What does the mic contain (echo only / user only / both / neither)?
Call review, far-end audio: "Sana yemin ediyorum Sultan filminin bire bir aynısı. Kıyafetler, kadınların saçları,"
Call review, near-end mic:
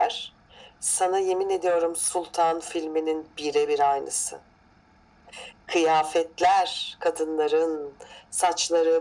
echo only